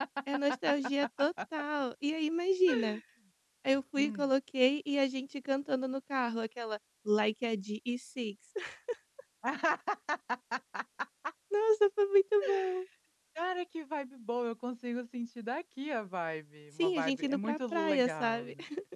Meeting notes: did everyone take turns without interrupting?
No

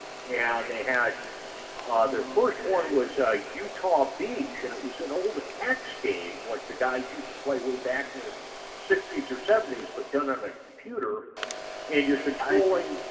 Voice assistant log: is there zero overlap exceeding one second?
No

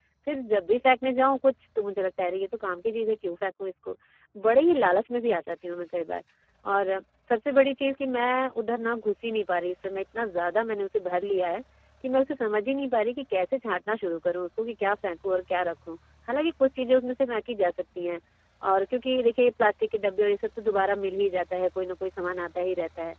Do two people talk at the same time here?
No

